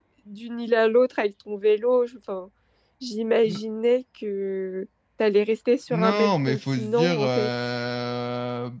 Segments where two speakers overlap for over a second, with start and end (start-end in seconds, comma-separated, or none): 5.9-7.5